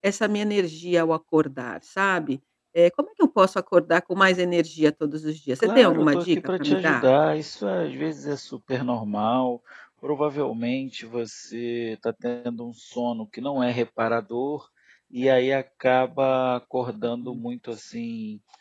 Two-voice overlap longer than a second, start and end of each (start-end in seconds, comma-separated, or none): 5.6-7.0